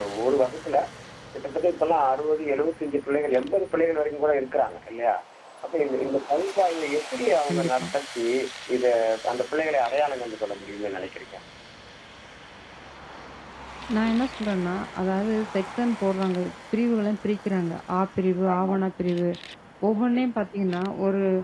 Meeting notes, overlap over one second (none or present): none